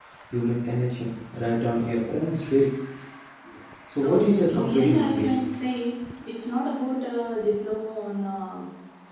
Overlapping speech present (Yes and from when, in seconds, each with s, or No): Yes, from 4.0 s